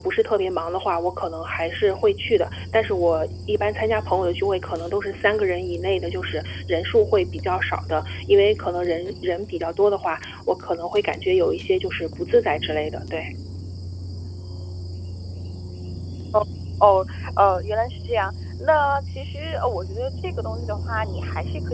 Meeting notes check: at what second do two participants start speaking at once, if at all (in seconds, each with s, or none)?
none